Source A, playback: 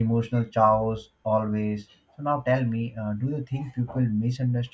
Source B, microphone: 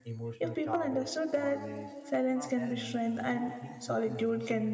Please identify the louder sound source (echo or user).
user